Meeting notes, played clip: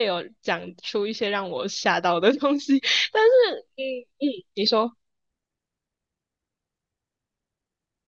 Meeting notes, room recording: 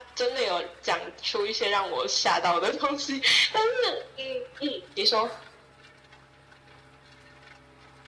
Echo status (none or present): present